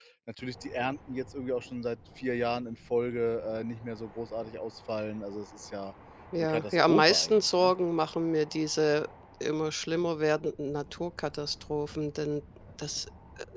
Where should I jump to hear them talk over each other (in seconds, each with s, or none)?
6.4 s